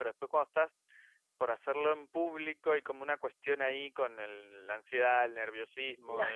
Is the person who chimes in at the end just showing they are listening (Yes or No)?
Yes